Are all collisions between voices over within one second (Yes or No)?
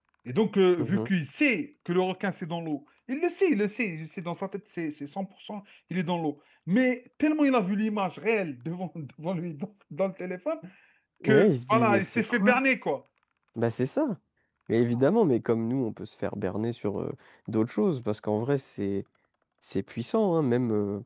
No